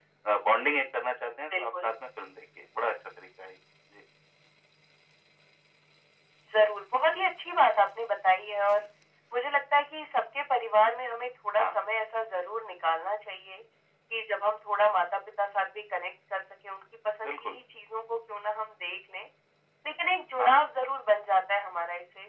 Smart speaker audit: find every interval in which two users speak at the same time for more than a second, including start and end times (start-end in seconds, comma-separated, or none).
none